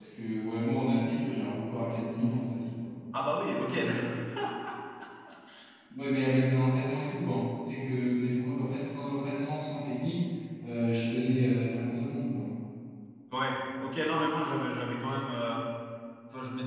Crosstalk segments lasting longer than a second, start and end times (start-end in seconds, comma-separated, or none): none